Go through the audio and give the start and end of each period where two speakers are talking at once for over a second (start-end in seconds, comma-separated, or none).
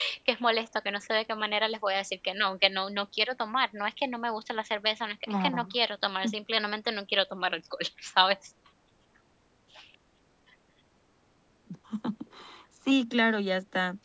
none